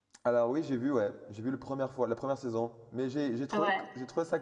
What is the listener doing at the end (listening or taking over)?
listening